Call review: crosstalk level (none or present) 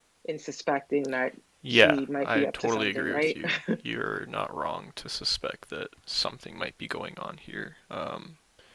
present